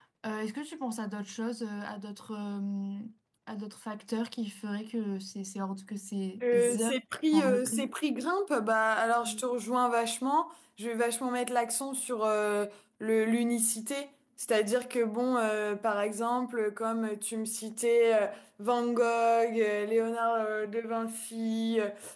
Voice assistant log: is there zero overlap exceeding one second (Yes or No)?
Yes